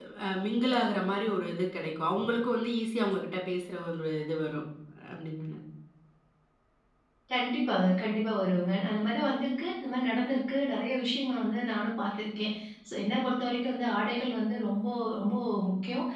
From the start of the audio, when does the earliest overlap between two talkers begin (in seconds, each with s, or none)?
none